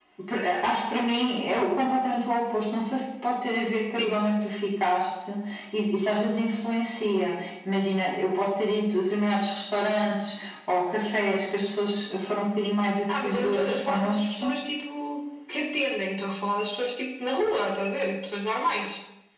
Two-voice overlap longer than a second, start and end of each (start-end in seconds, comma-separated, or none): 13.2-14.6